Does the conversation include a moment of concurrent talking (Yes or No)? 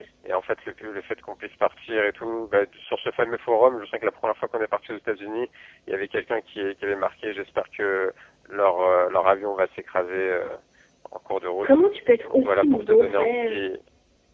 Yes